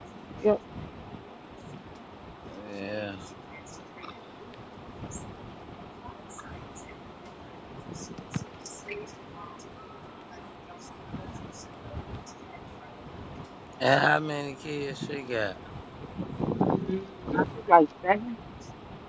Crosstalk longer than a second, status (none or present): none